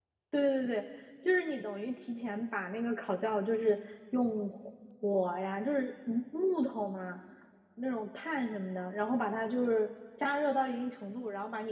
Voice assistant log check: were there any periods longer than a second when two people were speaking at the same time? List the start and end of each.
none

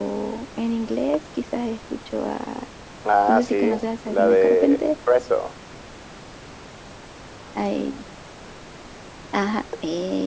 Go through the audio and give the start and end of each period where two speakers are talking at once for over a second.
3.3-4.8

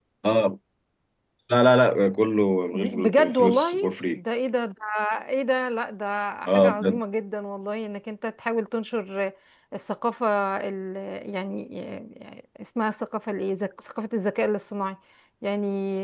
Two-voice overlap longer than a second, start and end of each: 2.7-4.2

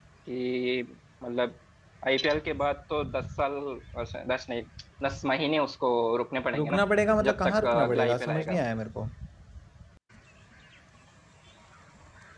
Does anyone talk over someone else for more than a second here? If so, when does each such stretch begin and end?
7.2-8.6

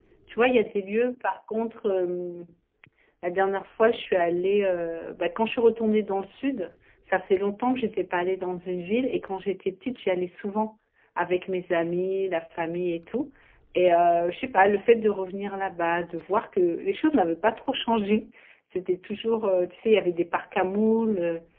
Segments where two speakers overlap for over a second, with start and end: none

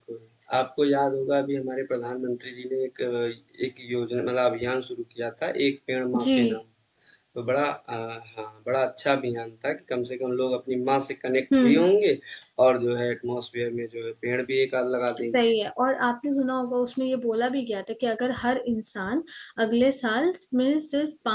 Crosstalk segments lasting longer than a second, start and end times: none

